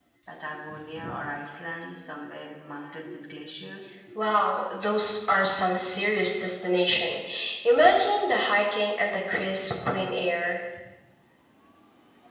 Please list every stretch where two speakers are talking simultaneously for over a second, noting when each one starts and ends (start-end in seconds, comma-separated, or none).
none